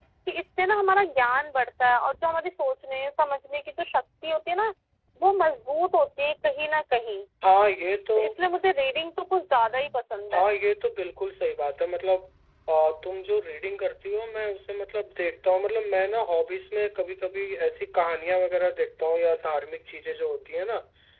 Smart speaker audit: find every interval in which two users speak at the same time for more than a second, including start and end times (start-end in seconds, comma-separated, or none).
none